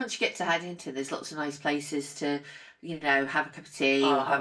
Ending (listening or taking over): taking over